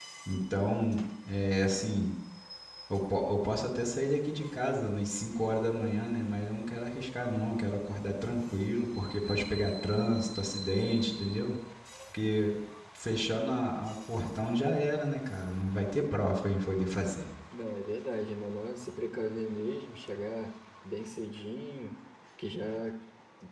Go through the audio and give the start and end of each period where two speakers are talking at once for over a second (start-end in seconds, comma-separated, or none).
none